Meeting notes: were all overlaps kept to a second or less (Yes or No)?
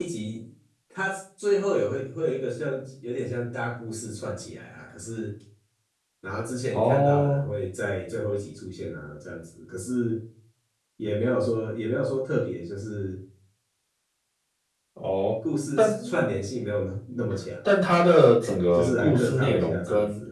No